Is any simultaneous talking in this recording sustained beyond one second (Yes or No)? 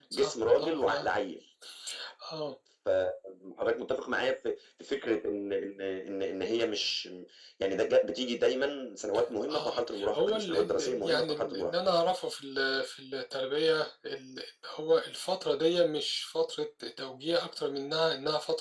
Yes